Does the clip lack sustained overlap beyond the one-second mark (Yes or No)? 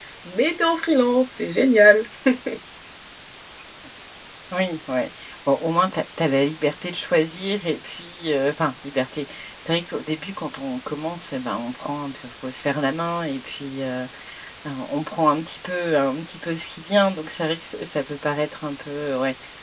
Yes